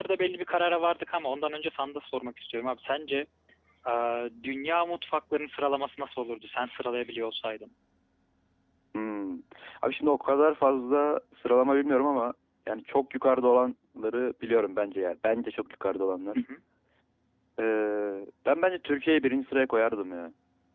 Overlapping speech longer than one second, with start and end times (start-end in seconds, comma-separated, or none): none